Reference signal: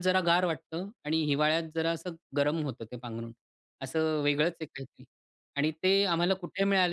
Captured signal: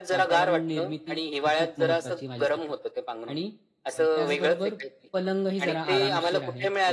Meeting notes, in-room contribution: present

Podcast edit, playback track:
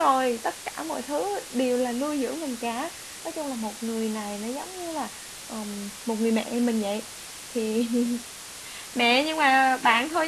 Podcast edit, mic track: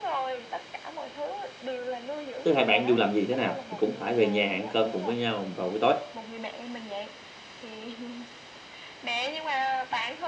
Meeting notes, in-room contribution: present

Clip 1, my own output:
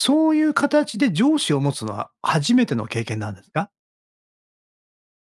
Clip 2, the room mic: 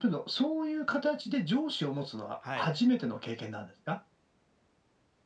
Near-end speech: present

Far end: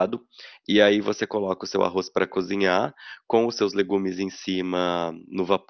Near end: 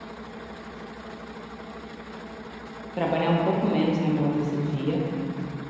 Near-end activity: present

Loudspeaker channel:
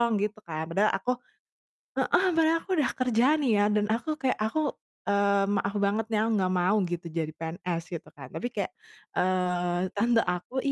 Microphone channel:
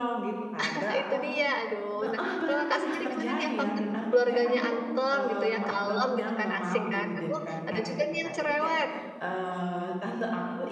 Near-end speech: present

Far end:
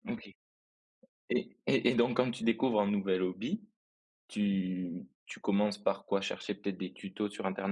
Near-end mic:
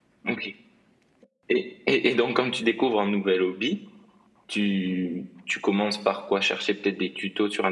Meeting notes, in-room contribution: none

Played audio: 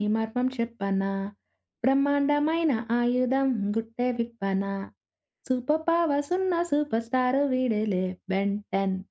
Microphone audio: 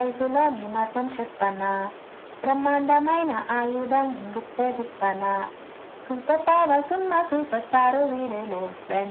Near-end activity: none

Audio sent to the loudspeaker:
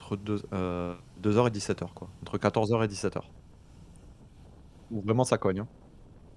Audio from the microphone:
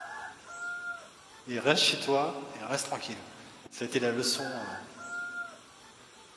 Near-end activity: present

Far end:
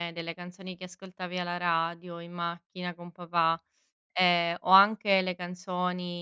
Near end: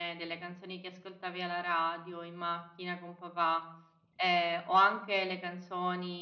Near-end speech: none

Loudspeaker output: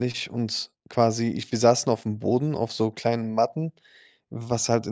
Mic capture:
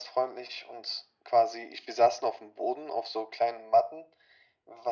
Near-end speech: none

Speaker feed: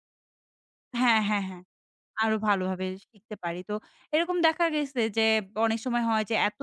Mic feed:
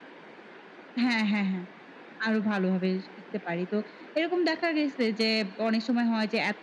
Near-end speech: none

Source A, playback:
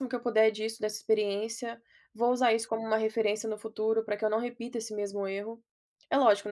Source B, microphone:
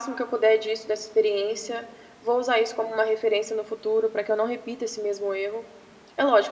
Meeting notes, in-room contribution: none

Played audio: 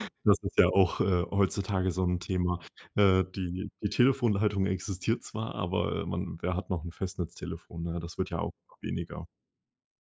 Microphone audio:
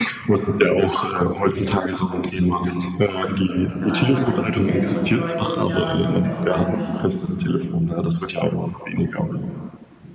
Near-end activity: present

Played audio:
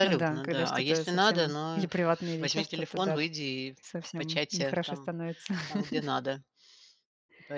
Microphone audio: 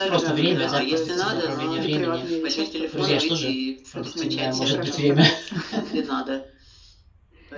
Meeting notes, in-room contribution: present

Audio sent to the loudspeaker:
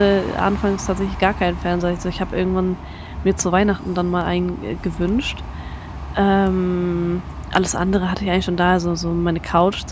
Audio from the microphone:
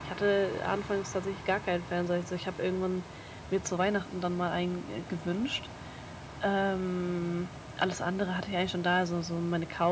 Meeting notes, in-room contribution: none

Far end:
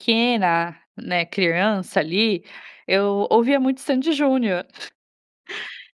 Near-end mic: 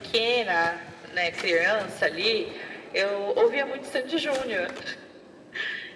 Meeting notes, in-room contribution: none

